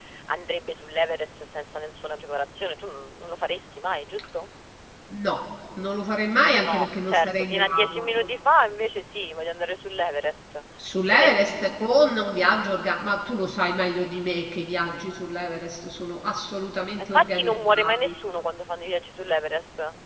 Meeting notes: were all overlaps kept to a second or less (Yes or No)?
No